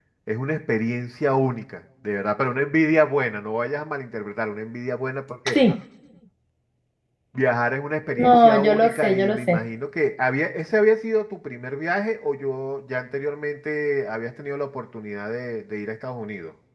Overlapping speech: Yes, from 8.2 s

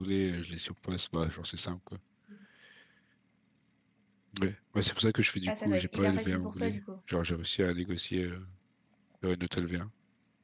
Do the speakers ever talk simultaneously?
Yes, from 5.5 s

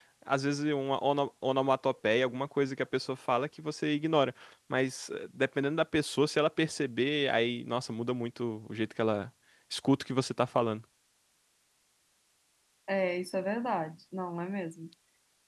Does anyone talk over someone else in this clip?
No

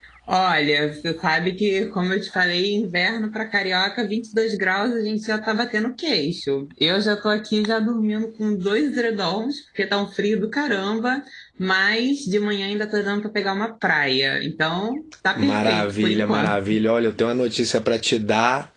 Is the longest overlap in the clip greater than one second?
Yes, from 15.4 s

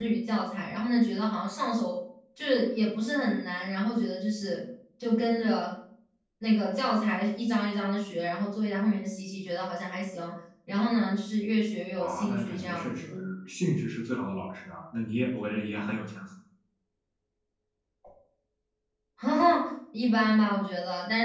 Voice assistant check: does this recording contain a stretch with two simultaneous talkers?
Yes, from 12.0 s

